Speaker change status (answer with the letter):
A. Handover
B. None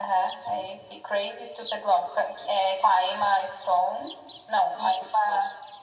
B